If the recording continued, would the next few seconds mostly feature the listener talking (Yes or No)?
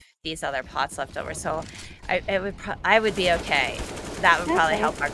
Yes